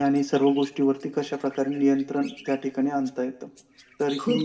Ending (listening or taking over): taking over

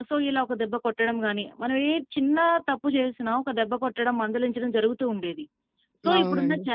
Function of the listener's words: listening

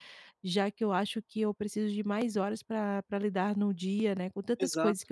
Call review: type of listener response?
listening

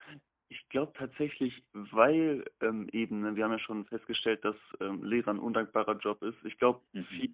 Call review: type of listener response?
listening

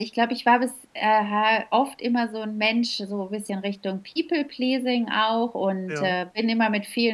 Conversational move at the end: listening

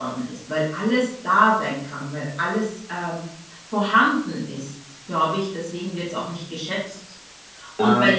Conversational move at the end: listening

